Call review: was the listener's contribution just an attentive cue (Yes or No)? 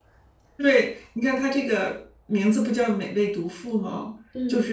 Yes